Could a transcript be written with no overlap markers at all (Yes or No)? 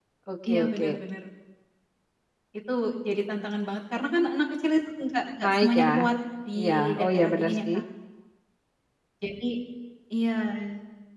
No